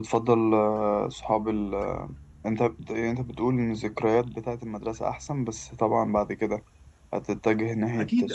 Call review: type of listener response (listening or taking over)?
taking over